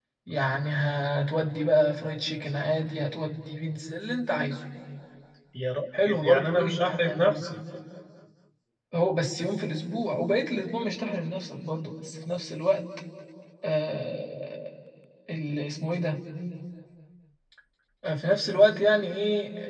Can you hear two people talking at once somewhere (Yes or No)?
Yes